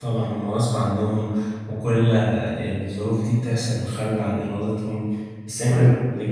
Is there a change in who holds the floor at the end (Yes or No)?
No